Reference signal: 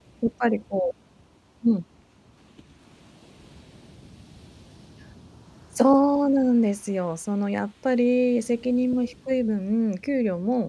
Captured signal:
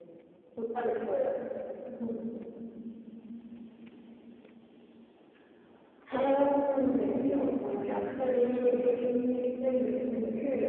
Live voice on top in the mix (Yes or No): No